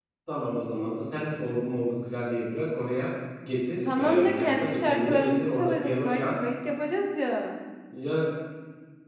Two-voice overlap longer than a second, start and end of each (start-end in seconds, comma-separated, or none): 4.0-6.2